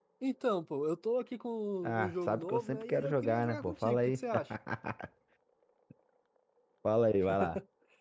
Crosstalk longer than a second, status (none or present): present